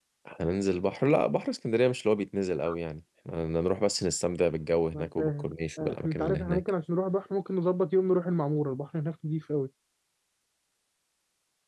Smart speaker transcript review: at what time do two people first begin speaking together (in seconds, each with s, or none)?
4.9 s